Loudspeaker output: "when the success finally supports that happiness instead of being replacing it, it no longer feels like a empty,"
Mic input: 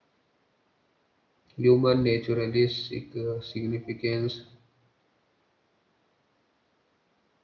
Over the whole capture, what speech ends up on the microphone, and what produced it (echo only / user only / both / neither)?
user only